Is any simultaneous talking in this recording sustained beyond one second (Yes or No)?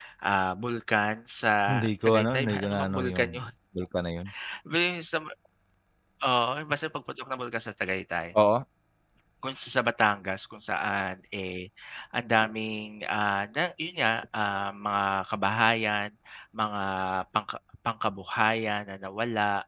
Yes